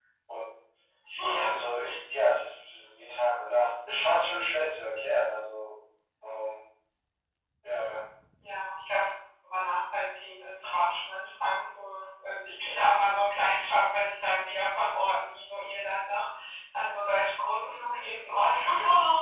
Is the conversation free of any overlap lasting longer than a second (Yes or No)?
Yes